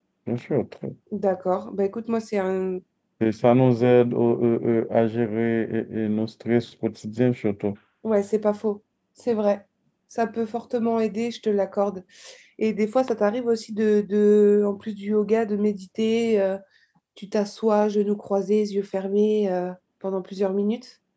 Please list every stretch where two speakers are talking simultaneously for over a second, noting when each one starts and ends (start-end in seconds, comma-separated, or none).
none